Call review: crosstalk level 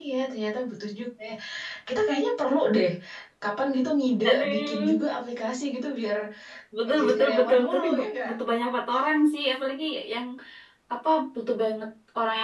present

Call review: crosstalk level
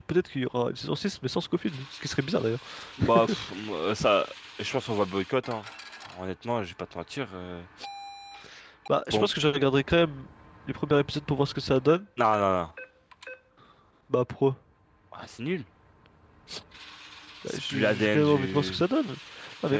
present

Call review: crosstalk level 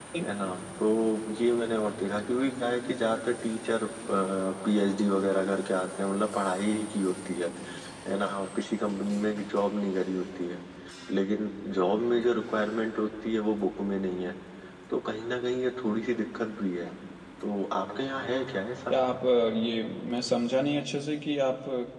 none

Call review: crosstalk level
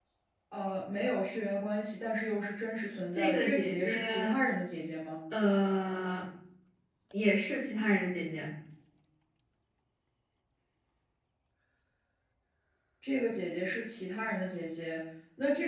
present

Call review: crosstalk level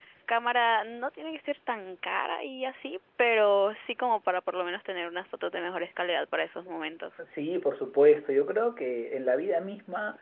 none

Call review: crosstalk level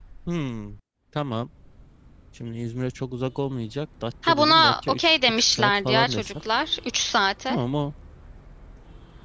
present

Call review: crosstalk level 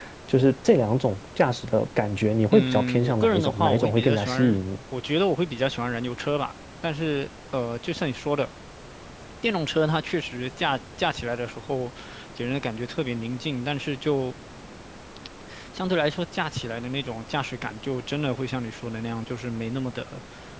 present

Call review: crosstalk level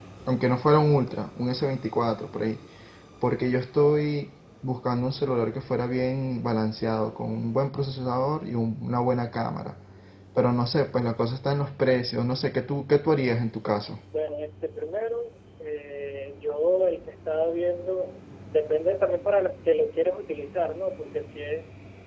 none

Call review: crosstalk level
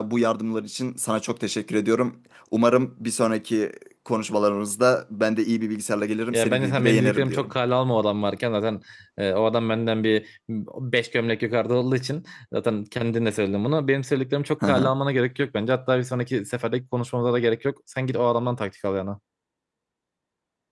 present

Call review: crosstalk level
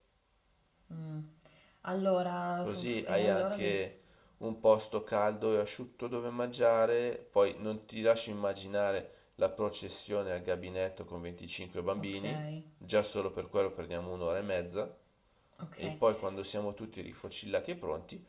present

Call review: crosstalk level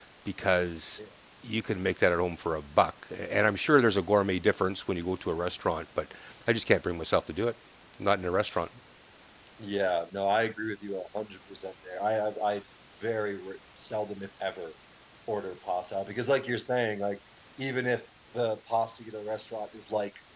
none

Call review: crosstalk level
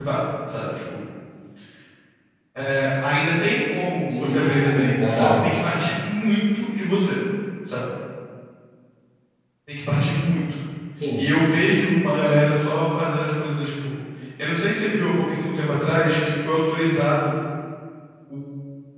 present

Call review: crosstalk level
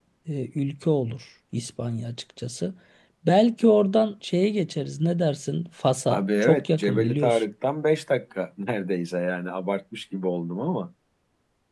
present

